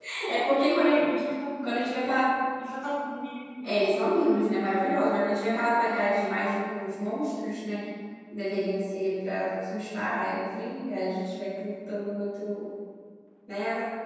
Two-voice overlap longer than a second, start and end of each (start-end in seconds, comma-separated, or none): none